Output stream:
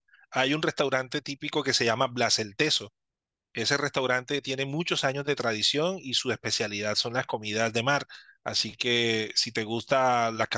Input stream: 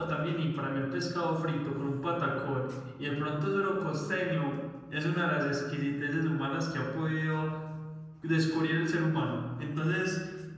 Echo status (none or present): none